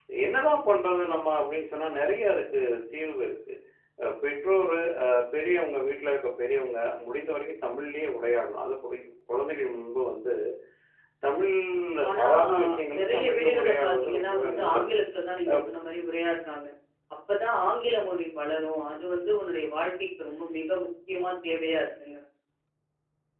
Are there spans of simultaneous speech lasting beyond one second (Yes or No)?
Yes